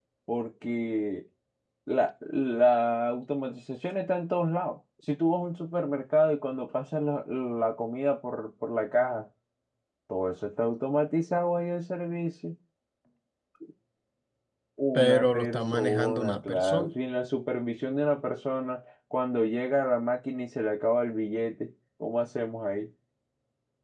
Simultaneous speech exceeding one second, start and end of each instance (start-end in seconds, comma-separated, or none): 14.9-16.9